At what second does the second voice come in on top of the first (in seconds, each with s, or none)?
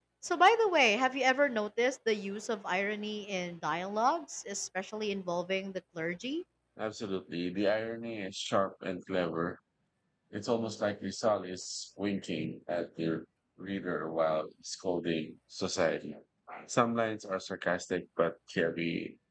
none